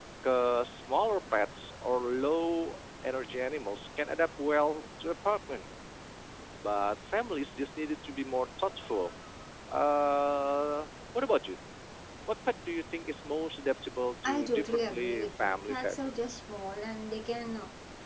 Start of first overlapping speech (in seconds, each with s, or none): 14.2 s